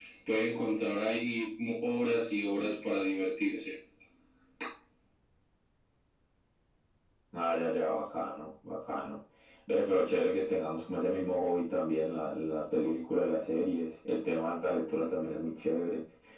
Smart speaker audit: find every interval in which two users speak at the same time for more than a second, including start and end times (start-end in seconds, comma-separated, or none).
none